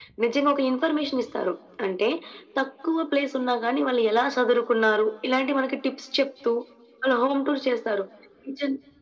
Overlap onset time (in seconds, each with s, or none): none